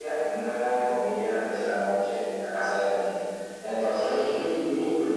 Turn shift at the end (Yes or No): No